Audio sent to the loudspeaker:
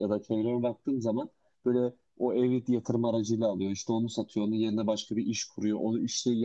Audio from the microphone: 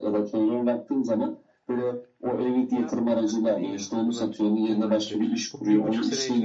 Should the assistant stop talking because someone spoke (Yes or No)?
Yes